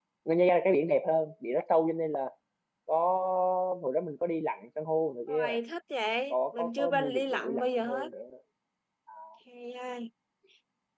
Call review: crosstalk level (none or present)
present